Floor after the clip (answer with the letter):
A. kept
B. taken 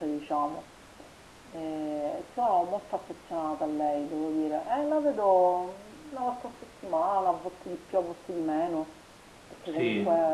A